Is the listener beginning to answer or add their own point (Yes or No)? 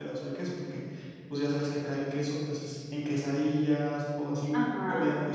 Yes